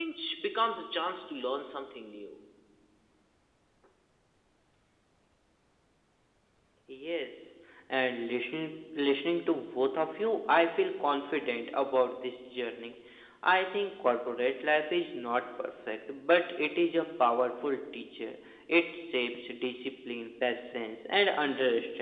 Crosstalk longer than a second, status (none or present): none